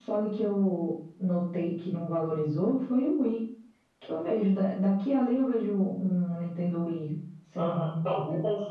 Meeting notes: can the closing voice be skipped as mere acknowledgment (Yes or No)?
No